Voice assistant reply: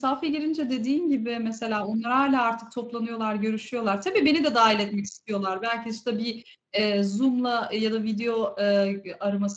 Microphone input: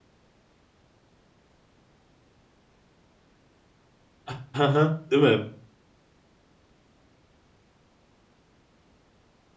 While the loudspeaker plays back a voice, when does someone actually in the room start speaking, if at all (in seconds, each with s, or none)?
4.2 s